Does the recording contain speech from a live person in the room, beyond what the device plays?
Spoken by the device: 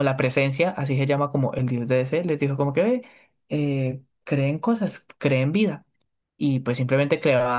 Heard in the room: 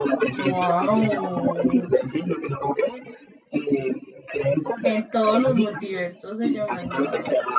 Yes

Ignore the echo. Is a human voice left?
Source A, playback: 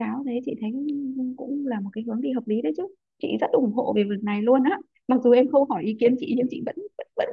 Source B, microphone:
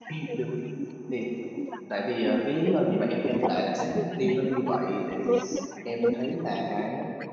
Yes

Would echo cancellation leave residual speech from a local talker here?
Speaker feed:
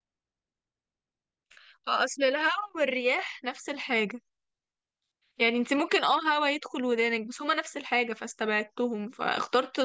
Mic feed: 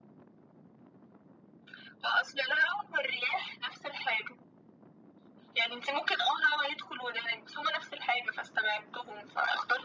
No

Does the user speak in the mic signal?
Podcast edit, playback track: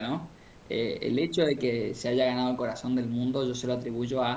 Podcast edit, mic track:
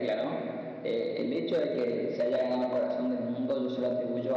No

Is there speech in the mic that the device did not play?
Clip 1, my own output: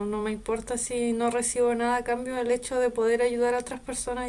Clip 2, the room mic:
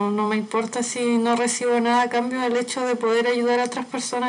No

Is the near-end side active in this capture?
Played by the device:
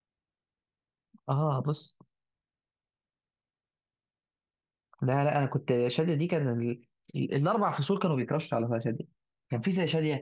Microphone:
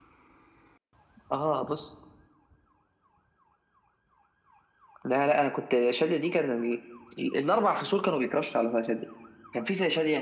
No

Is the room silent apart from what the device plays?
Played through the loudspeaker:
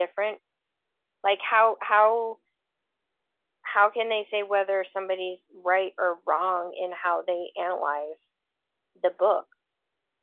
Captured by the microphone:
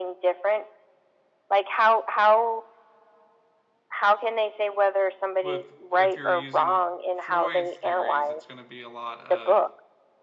No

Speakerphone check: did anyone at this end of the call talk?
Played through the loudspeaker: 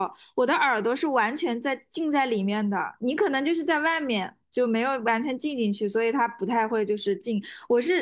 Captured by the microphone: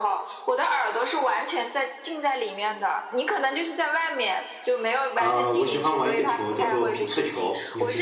Yes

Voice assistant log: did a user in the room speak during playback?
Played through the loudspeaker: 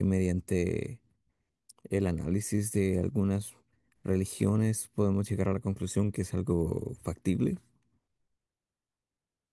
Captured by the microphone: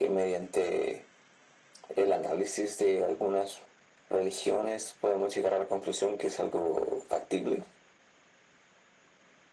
No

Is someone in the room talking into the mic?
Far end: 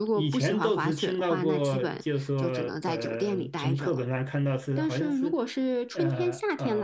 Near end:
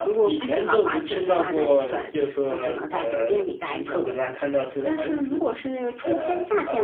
No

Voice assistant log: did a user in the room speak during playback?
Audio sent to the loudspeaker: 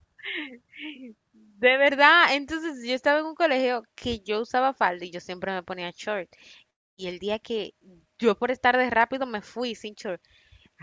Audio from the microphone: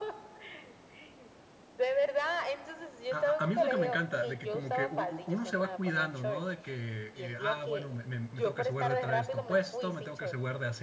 Yes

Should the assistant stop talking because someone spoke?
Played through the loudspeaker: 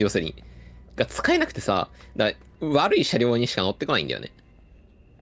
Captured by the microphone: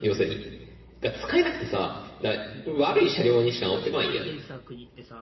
Yes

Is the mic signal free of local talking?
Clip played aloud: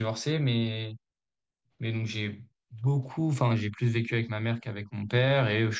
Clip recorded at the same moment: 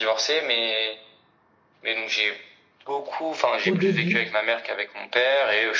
No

